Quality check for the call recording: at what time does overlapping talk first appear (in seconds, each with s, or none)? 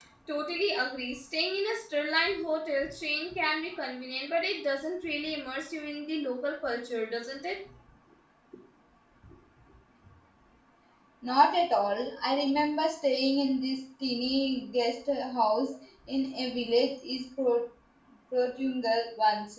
none